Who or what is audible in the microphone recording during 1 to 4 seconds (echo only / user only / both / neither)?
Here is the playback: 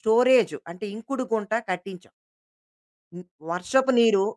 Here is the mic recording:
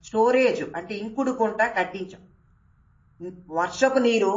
echo only